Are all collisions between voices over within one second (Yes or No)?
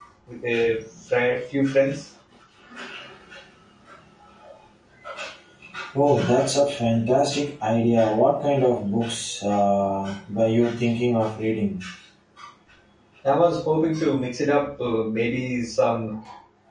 Yes